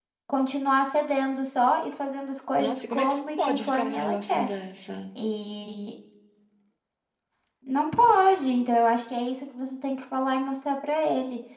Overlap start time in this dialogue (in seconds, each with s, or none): 2.6 s